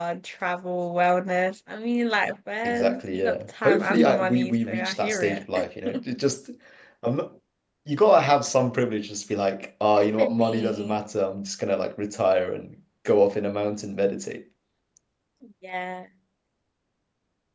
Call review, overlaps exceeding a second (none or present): present